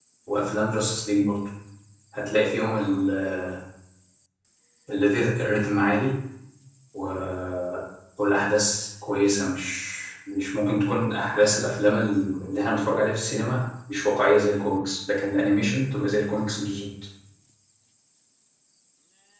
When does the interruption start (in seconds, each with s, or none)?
none